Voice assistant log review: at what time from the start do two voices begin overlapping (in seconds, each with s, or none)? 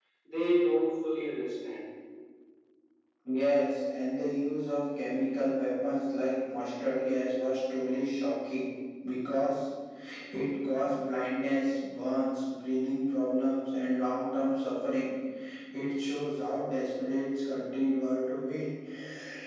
none